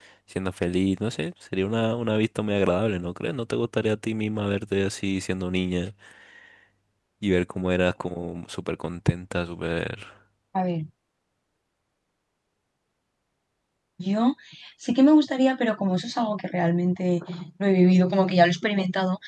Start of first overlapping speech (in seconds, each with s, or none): none